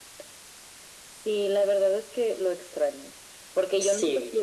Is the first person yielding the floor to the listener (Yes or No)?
No